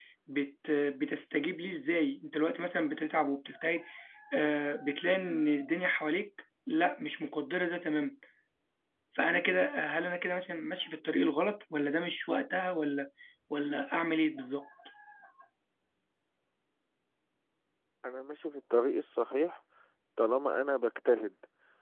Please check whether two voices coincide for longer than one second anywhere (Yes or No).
No